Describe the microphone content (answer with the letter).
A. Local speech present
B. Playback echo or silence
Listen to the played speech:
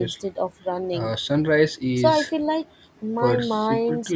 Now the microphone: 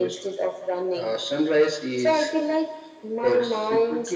B